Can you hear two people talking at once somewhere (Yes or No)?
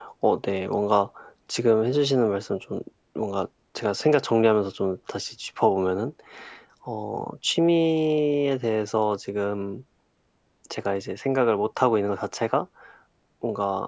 No